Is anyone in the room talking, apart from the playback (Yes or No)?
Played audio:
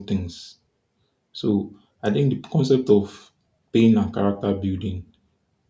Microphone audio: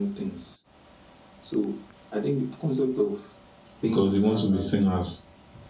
Yes